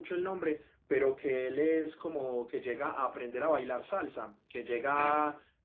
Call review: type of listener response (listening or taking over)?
listening